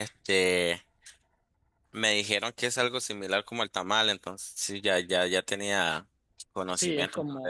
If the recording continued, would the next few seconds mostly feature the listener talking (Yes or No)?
Yes